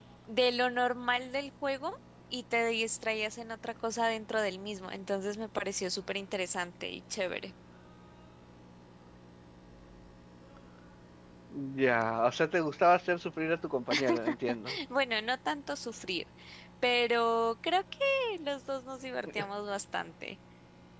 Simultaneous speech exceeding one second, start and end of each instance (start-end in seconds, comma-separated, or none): none